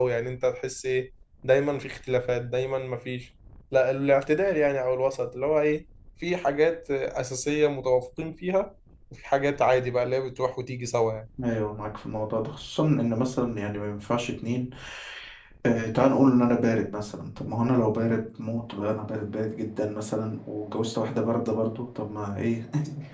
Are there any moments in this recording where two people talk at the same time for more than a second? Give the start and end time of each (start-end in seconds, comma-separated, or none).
none